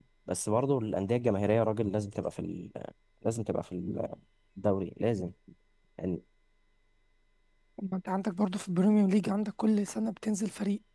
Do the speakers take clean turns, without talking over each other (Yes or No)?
Yes